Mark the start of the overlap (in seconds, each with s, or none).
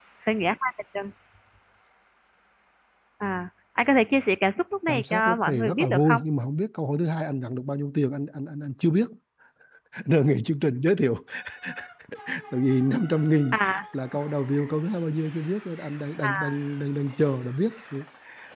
4.9 s